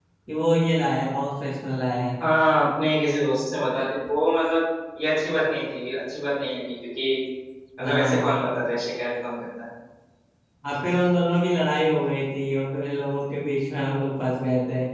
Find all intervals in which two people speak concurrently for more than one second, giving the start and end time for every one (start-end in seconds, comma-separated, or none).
none